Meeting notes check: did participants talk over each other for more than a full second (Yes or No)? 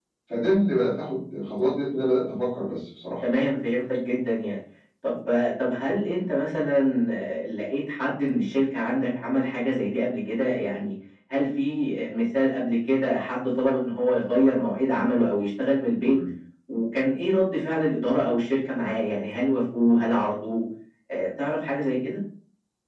No